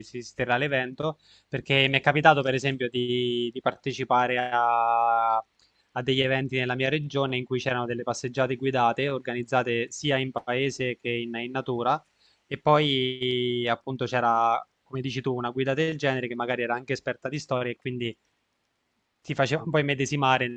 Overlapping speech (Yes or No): No